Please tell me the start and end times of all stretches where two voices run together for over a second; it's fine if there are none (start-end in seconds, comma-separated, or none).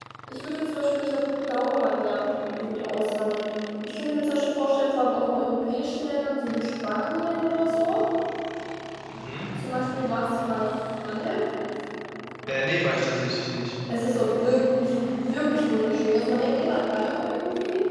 none